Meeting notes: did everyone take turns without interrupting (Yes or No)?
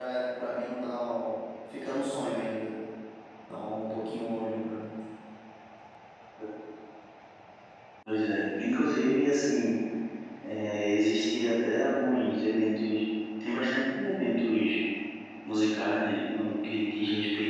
Yes